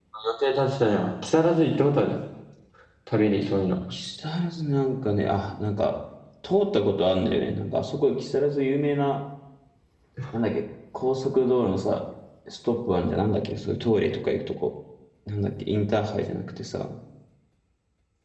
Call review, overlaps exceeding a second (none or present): none